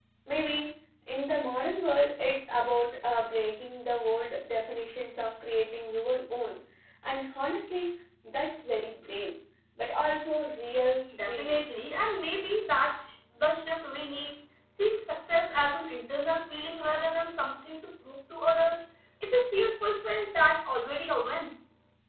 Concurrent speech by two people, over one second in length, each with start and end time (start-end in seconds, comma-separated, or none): none